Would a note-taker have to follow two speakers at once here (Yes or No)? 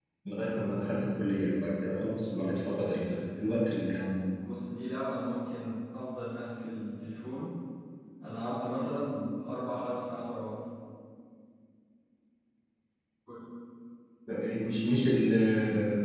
No